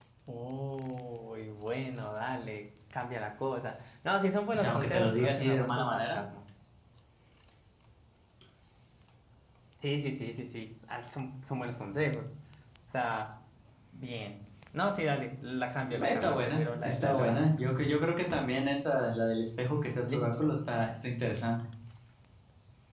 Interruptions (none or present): present